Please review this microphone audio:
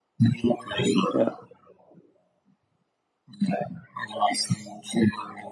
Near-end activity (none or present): present